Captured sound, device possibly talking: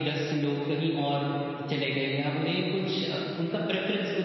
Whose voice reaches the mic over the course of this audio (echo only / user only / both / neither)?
echo only